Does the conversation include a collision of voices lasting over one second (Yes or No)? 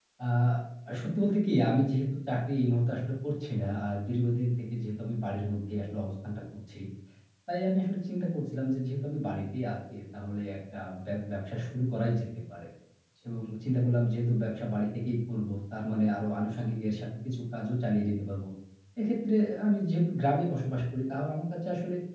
No